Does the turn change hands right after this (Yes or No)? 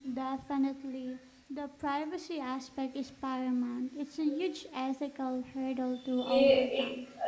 Yes